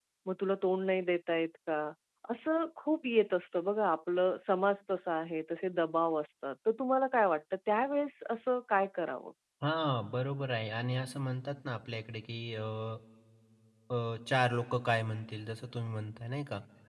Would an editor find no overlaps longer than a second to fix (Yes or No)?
Yes